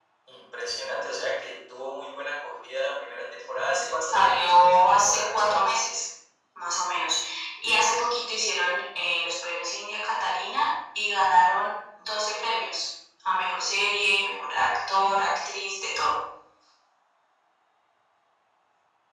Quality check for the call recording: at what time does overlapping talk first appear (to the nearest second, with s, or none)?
4 s